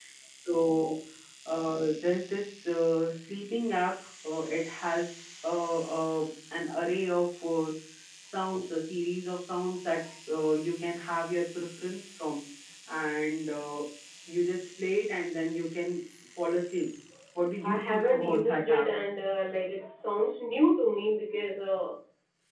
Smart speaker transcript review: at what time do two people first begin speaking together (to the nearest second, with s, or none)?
18 s